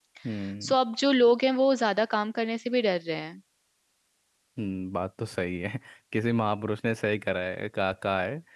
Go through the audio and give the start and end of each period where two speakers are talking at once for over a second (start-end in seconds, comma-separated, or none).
none